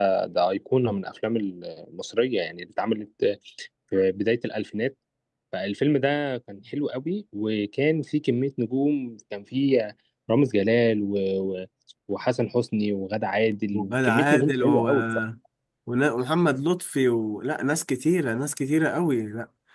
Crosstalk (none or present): present